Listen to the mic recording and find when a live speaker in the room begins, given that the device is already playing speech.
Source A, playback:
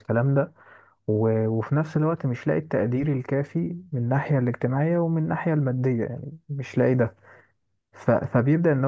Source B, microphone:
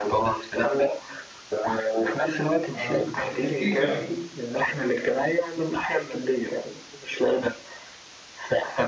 2.7 s

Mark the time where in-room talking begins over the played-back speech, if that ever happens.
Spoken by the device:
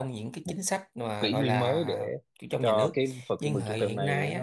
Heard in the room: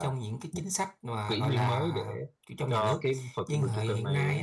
none

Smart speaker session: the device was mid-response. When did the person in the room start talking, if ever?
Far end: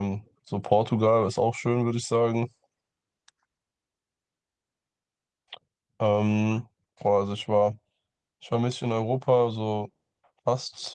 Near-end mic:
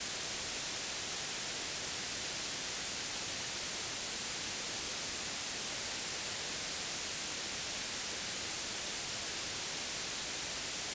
none

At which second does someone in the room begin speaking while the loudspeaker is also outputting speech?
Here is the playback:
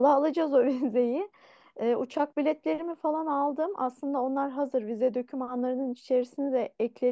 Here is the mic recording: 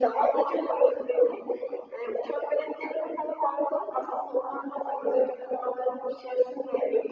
none

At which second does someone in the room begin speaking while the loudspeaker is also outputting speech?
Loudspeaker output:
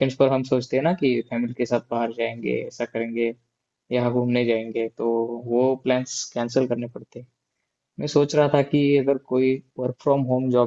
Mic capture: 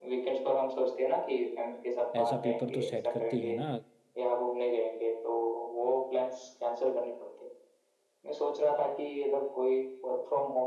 2.1 s

